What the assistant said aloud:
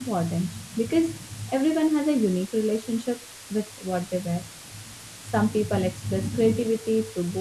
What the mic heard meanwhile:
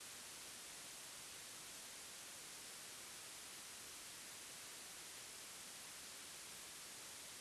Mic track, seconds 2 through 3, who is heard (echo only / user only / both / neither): neither